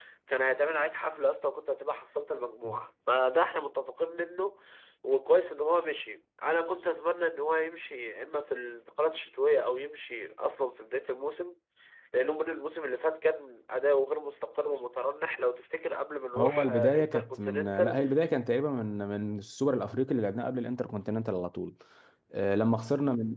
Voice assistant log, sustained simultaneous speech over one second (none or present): present